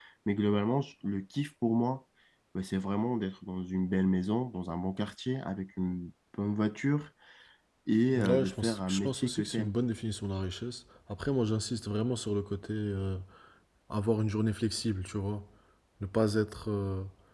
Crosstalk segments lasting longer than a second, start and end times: 8.1-9.7

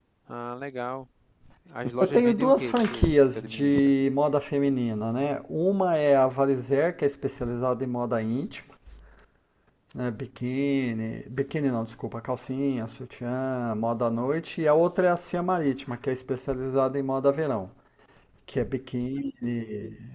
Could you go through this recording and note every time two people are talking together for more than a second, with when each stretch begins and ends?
2.0-3.9

